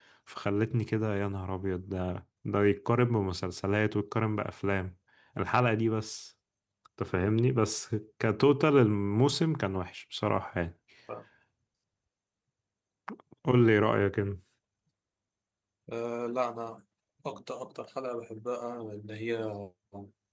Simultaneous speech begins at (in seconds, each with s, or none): none